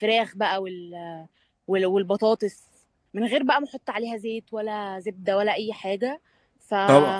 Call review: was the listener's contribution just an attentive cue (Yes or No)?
No